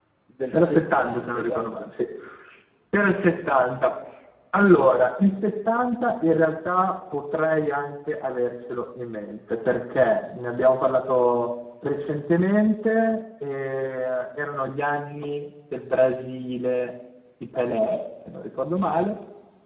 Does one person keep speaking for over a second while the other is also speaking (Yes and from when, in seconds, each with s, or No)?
Yes, from 0.5 s